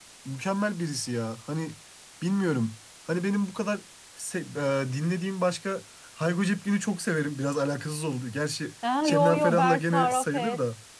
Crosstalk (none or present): present